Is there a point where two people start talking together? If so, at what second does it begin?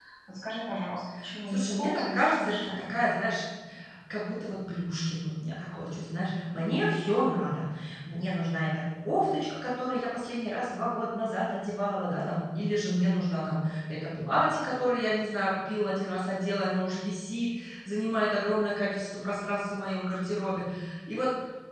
1.5 s

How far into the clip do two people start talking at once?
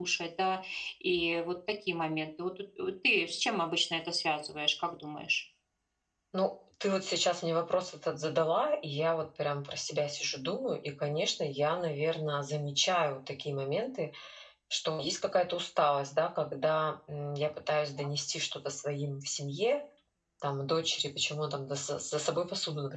none

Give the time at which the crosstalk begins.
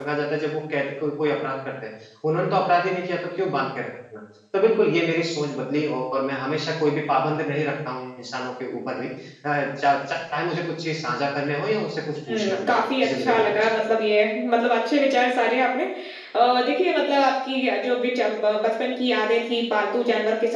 12.3 s

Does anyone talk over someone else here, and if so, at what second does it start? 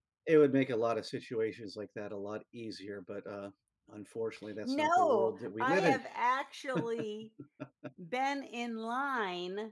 4.6 s

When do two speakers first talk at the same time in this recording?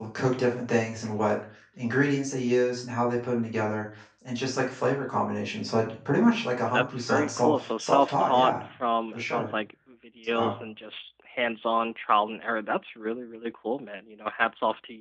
6.7 s

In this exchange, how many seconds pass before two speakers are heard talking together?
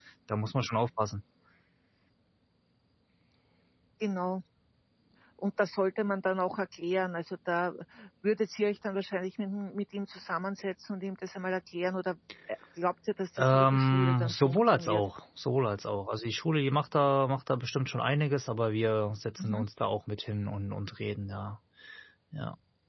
13.4 s

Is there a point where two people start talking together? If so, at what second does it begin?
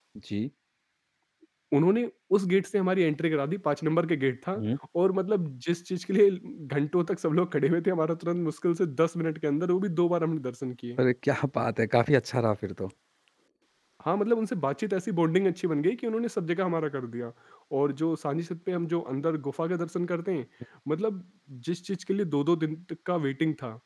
none

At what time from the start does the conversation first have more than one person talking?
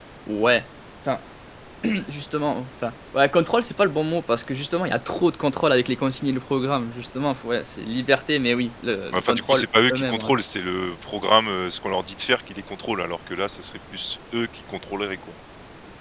9.1 s

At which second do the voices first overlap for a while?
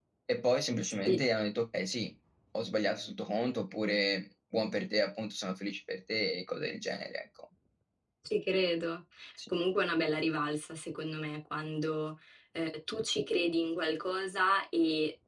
none

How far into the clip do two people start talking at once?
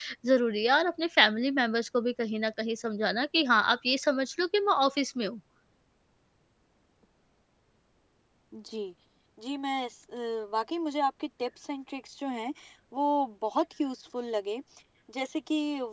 none

